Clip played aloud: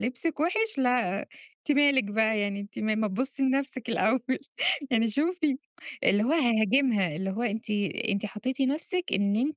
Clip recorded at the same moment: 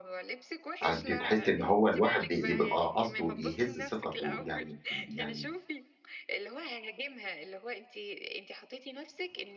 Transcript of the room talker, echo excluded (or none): آآ، أنتِ تحسّي إن هو الواحد ب يبقى قصده يهِزّ ثقته يعني في ال يعني